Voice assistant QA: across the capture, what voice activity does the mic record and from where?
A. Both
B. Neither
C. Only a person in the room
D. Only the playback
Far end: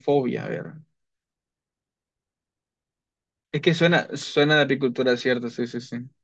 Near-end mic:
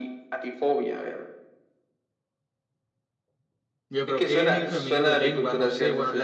A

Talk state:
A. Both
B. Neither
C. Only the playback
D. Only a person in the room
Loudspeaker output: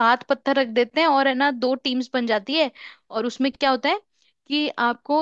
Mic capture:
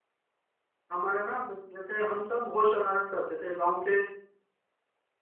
D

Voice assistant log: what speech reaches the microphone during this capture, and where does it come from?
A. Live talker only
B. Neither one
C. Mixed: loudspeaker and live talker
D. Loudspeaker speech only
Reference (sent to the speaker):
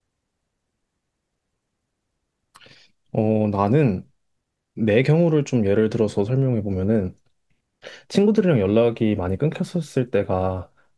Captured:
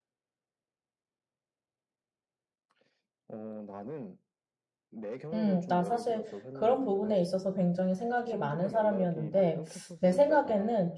C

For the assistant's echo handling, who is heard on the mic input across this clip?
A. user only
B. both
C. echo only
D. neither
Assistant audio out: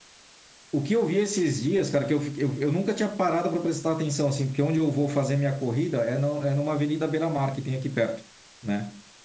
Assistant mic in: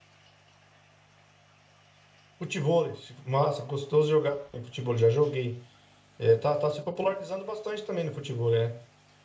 A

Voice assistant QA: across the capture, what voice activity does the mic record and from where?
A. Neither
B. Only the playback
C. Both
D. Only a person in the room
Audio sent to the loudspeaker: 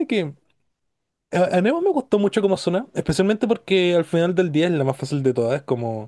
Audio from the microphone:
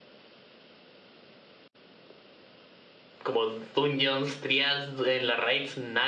D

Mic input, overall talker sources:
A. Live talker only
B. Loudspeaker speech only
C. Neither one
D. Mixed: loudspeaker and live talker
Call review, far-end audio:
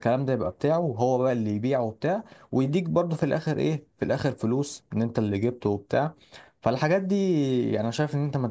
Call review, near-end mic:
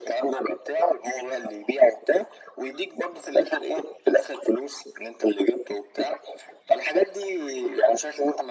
B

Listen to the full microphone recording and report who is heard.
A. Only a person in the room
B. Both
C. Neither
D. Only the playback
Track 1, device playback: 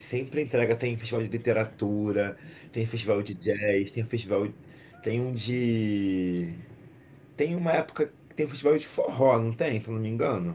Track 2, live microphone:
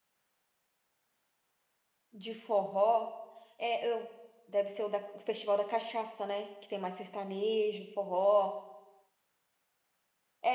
A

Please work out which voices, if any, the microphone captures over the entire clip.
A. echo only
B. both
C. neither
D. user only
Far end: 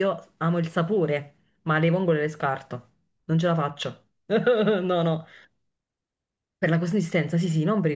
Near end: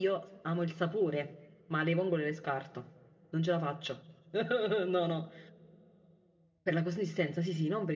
A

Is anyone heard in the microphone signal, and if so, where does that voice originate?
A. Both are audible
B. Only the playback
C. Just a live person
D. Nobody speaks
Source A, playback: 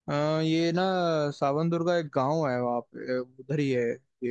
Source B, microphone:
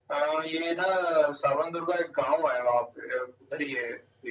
B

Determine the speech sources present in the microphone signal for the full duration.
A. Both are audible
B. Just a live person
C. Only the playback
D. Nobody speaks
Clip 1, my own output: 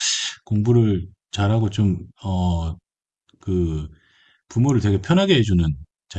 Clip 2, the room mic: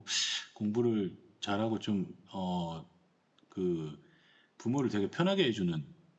C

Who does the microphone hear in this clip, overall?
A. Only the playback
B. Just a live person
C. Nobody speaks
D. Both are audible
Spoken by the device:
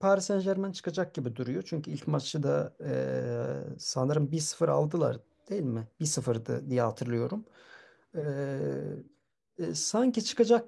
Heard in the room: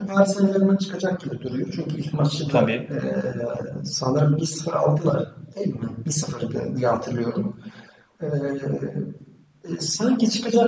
D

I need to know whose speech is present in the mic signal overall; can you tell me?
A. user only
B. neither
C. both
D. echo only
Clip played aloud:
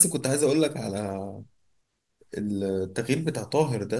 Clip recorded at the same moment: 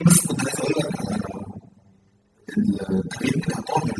D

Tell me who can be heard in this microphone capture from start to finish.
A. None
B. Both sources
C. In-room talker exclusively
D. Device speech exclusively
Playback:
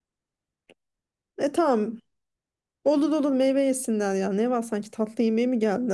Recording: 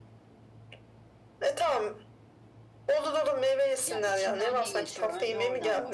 B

